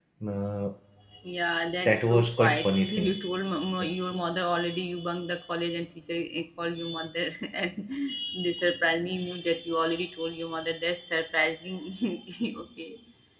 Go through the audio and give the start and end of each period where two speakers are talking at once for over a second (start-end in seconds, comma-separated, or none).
1.9-3.2